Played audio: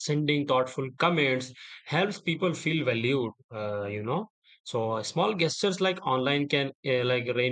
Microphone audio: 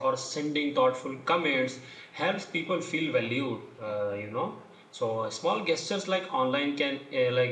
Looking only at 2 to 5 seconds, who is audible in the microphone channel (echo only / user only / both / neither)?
echo only